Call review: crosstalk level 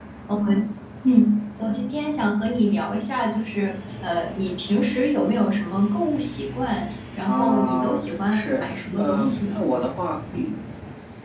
present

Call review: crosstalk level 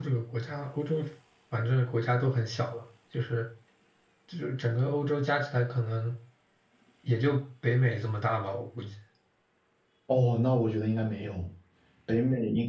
none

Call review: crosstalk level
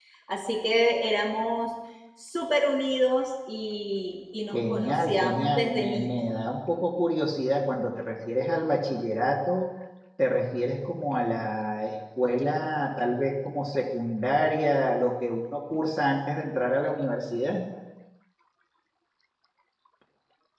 present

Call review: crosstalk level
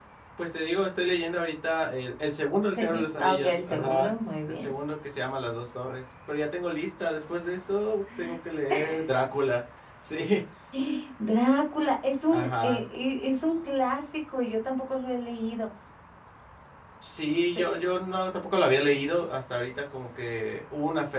present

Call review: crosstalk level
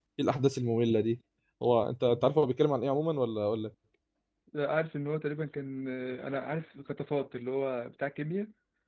none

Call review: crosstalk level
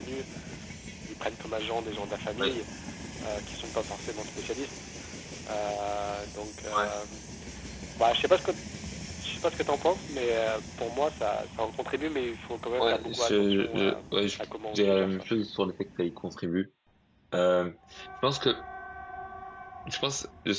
present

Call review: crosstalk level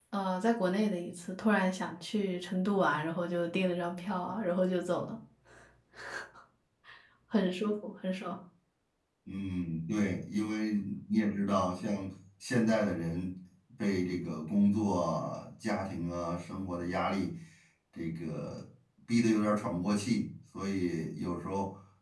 none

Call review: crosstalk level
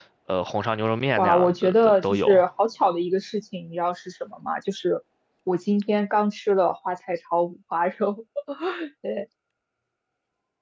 present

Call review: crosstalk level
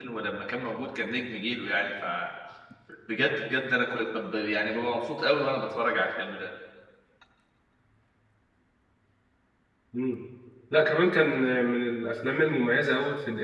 none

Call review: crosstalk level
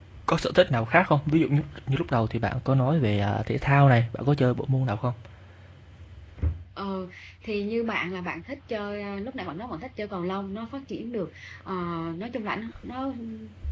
none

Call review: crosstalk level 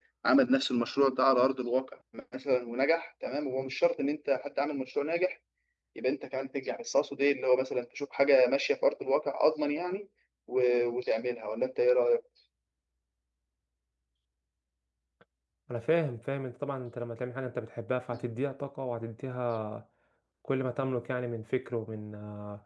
none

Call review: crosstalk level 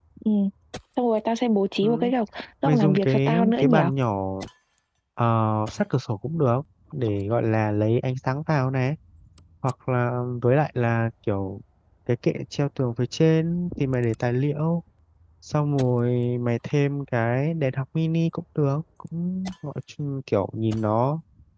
present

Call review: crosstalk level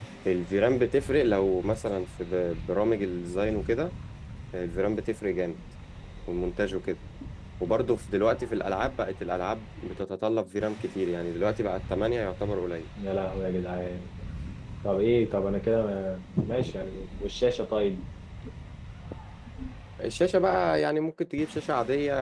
none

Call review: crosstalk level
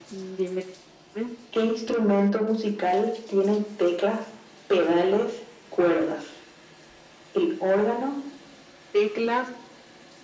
none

